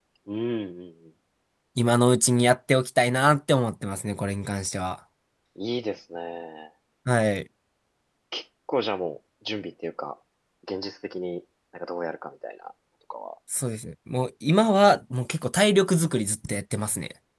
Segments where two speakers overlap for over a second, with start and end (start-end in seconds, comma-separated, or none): none